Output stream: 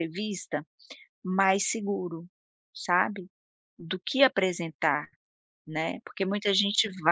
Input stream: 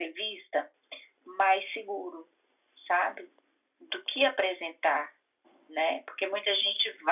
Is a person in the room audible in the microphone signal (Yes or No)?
No